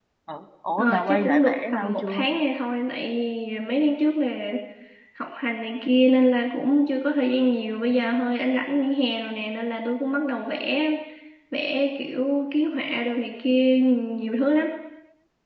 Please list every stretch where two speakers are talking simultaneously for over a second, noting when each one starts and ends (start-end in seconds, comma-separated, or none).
0.8-2.3